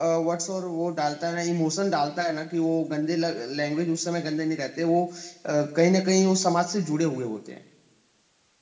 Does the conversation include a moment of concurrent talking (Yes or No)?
No